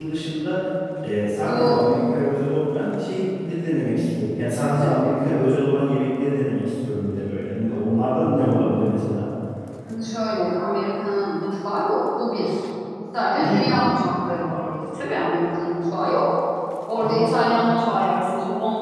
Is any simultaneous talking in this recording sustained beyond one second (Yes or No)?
No